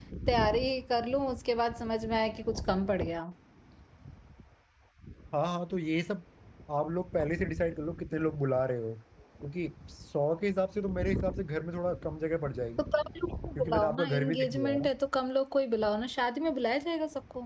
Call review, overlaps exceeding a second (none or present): present